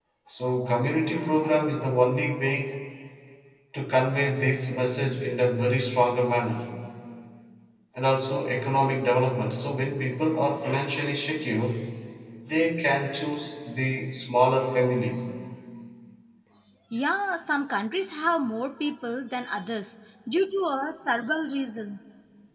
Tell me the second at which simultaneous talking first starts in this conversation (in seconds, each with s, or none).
none